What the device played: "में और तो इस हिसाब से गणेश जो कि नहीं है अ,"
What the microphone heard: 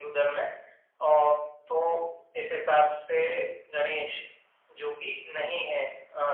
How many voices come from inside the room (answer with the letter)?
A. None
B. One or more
A